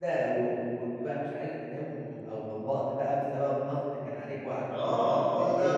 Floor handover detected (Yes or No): Yes